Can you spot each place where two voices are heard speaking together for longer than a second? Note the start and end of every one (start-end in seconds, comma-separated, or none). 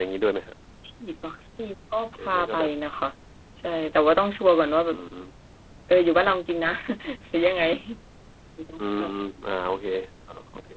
none